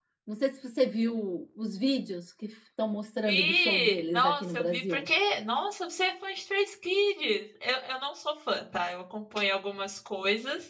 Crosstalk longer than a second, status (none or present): present